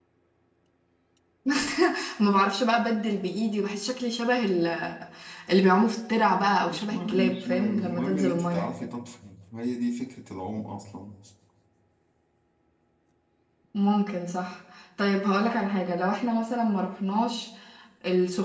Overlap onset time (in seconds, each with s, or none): 6.7 s